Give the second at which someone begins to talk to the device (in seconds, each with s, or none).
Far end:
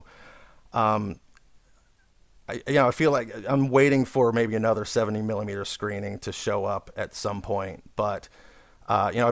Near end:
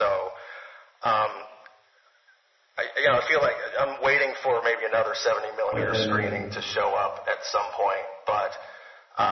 5.7 s